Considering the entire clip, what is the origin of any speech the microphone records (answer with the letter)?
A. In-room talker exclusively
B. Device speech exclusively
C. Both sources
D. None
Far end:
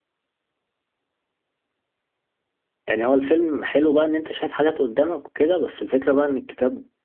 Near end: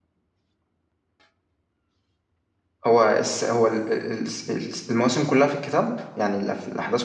A